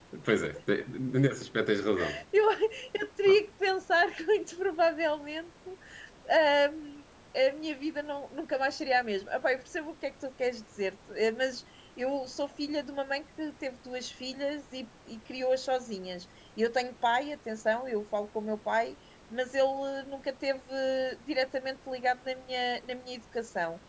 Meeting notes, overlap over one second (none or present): none